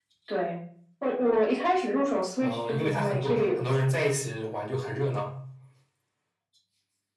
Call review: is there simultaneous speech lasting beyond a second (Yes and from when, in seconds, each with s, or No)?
Yes, from 2.4 s